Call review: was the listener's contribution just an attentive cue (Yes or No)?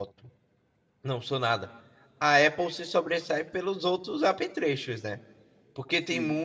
Yes